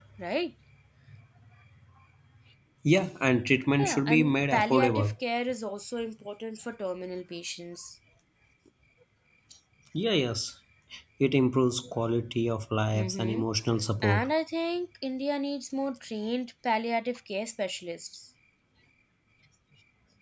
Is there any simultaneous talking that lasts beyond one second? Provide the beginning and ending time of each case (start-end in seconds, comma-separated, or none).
3.8-5.1